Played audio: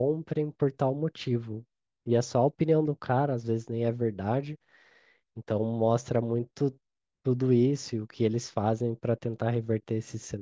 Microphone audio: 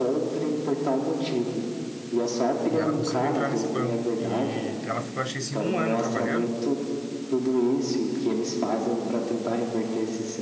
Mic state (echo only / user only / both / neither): both